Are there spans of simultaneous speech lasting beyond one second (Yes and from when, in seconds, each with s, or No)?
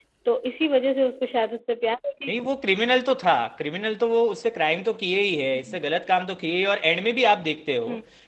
No